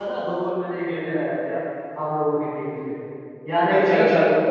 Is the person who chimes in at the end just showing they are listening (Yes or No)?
No